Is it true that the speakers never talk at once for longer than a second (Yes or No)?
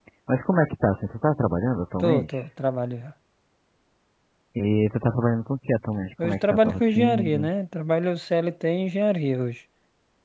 No